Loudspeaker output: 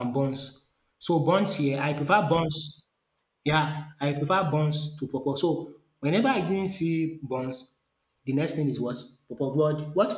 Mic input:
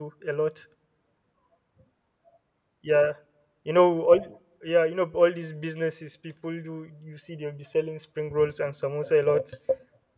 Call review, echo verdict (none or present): none